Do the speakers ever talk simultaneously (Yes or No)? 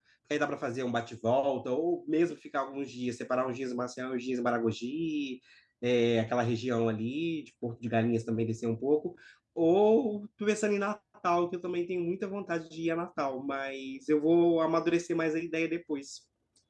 No